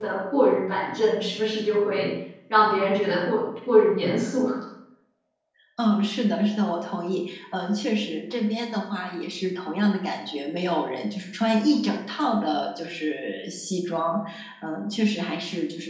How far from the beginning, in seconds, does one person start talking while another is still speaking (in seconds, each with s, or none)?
none